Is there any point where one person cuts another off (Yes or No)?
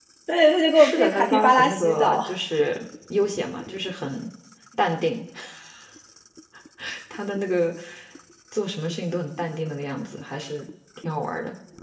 Yes